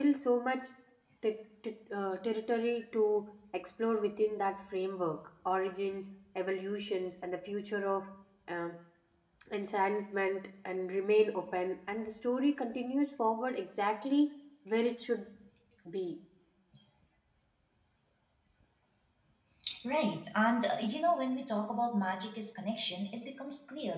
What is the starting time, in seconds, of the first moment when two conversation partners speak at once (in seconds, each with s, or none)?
none